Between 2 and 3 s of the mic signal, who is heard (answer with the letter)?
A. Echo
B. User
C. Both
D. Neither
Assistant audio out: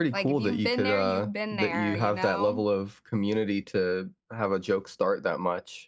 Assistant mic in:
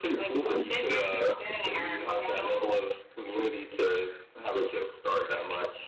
A